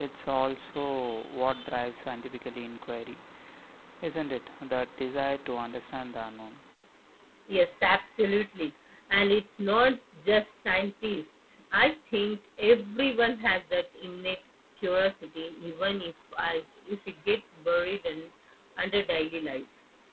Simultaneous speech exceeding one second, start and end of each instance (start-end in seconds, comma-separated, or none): none